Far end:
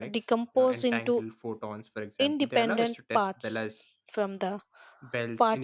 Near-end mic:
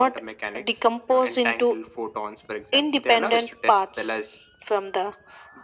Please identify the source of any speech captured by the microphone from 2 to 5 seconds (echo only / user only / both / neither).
echo only